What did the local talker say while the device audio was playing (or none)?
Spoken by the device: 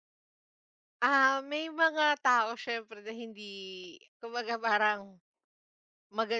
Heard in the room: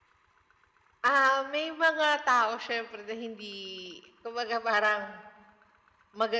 none